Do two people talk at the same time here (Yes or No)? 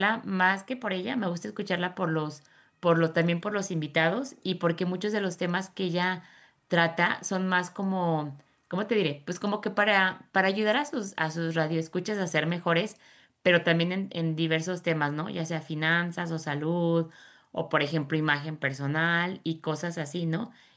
No